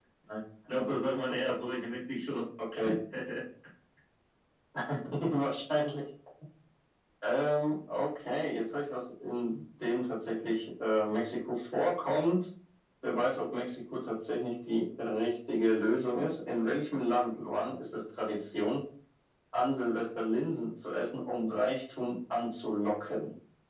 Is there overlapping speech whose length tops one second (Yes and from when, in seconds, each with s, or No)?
No